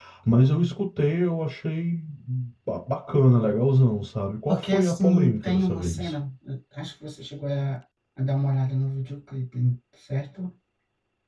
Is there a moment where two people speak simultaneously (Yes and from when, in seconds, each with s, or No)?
Yes, from 4.5 s